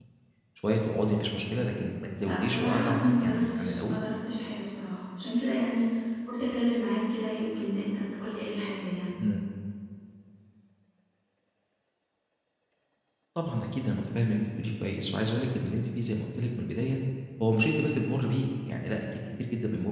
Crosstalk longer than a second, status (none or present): present